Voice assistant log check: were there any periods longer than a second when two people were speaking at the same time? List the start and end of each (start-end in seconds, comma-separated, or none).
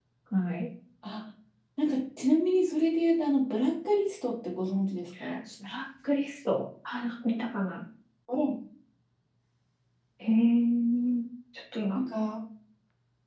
none